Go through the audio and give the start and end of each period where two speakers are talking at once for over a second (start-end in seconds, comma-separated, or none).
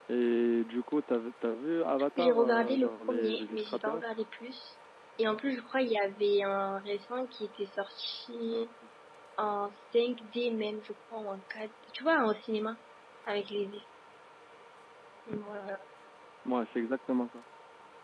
2.2-4.0